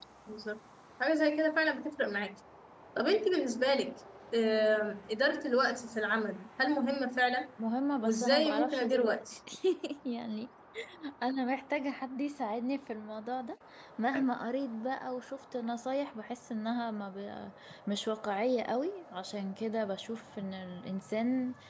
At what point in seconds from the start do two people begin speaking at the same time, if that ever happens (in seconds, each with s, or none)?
8.0 s